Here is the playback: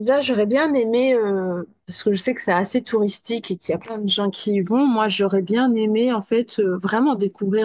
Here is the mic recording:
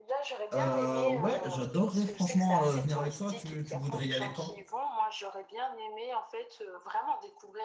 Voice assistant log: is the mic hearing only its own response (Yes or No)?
No